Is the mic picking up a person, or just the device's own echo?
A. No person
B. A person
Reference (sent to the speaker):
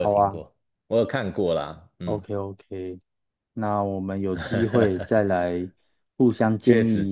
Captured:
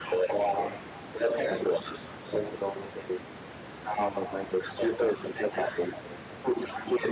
A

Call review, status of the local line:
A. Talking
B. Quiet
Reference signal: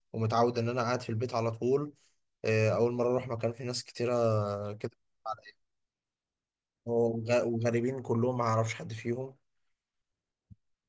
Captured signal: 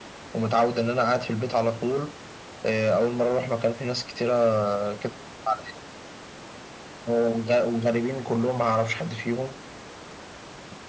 B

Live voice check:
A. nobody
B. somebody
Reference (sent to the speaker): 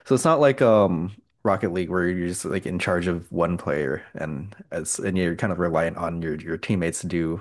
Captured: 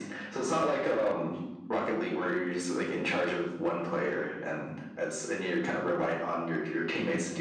A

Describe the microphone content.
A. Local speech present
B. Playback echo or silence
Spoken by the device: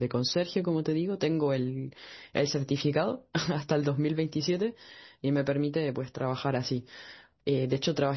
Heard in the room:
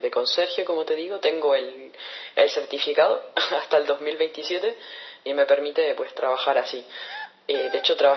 B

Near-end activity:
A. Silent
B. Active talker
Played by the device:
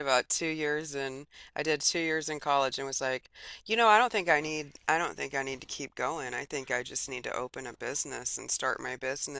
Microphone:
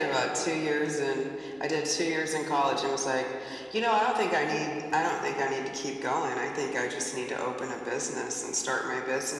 A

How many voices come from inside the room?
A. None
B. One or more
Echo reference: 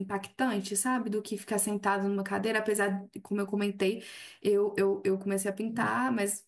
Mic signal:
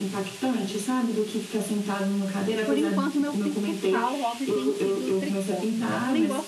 B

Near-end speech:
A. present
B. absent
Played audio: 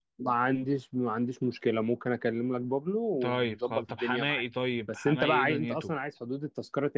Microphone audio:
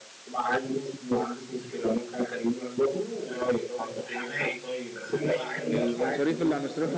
A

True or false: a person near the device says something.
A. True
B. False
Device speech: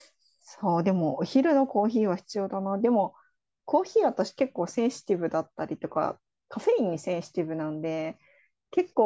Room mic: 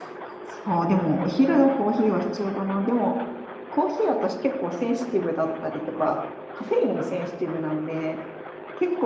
B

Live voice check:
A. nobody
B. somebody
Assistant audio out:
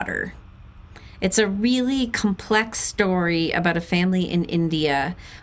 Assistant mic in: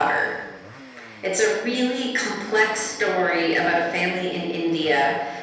A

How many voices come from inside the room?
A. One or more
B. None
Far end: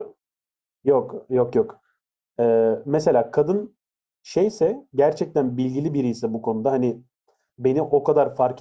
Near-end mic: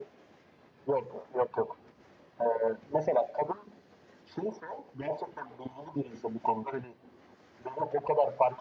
B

